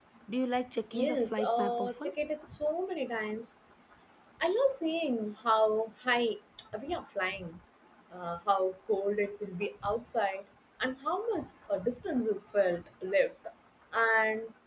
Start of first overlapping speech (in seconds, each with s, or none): 0.9 s